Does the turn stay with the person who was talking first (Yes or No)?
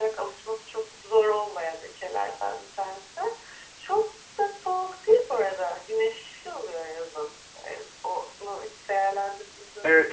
No